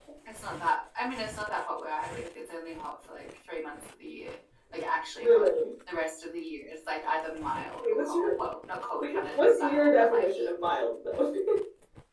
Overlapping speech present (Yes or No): Yes